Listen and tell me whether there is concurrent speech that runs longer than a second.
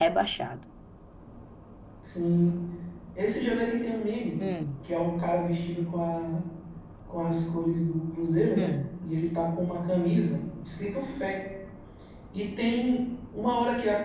No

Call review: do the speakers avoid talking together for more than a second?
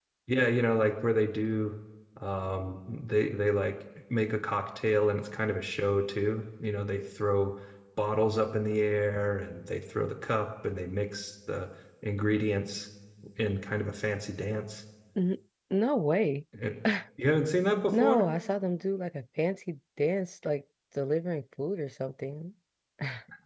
Yes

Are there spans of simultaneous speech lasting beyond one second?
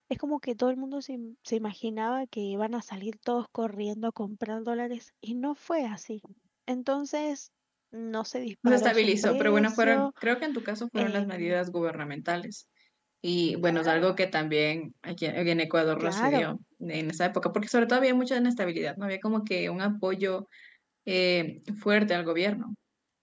Yes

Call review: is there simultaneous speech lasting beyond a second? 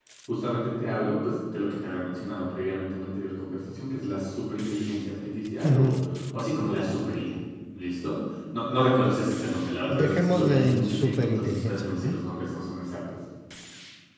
Yes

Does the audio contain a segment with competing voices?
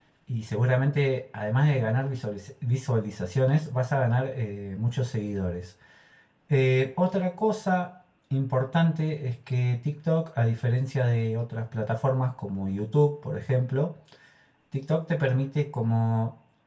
No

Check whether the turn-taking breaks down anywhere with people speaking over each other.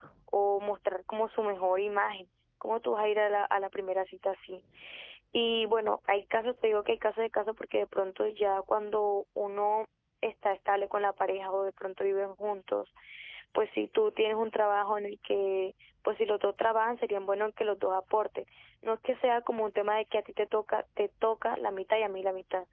No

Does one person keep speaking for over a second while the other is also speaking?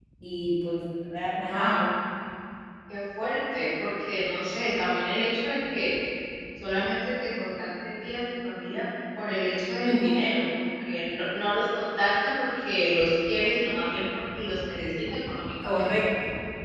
No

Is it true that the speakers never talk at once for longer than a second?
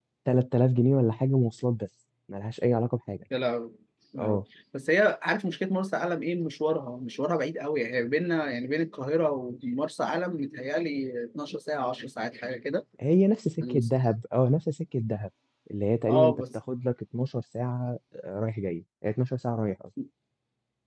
Yes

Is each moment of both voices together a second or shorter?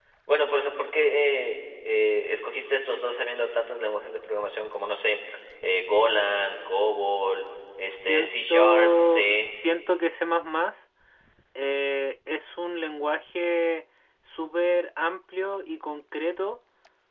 No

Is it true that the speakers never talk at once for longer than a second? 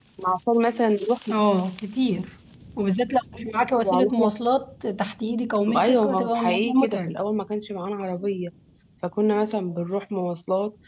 No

